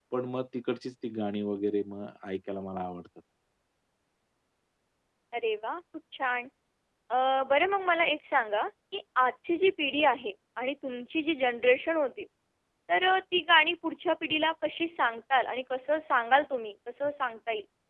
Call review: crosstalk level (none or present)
none